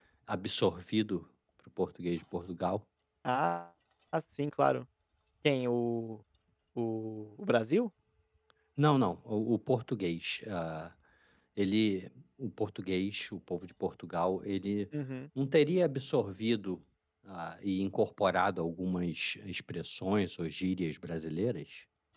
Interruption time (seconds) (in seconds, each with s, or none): none